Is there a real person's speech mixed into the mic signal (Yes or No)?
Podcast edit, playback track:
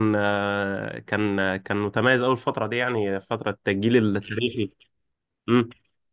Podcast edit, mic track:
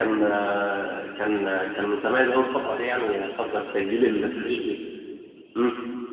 No